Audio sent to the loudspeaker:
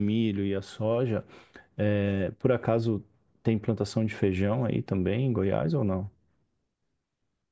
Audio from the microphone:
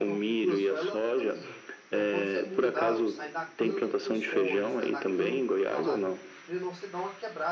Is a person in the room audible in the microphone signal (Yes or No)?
Yes